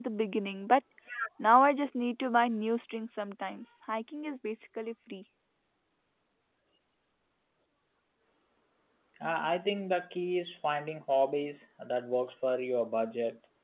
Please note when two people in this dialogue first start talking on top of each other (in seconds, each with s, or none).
none